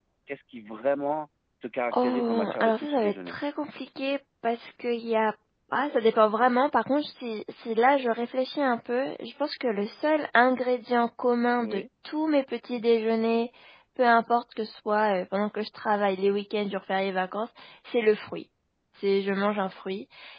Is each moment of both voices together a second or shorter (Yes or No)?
No